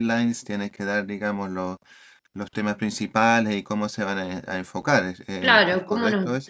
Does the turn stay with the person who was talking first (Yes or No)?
No